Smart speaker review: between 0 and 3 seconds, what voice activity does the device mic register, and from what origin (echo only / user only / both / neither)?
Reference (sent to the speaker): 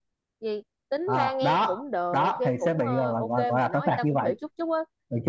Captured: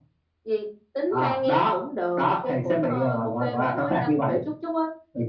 echo only